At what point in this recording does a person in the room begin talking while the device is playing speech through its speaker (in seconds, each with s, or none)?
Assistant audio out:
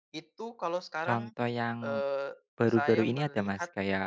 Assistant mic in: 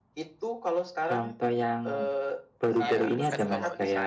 2.9 s